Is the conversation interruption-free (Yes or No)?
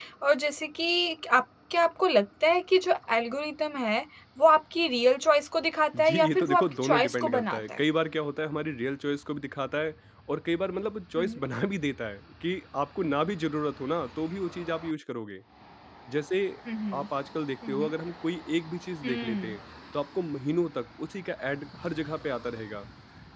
No